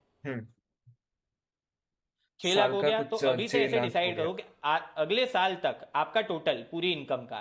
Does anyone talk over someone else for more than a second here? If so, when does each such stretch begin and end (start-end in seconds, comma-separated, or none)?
2.5-4.3